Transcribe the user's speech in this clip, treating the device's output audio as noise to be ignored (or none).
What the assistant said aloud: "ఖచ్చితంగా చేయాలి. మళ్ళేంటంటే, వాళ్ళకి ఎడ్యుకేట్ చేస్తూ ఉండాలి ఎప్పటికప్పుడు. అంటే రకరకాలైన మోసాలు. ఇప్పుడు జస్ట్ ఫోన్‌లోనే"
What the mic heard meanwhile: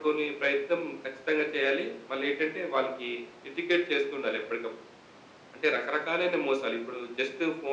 none